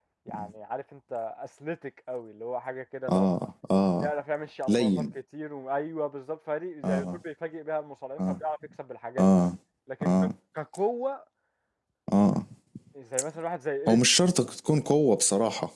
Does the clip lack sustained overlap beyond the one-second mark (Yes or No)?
Yes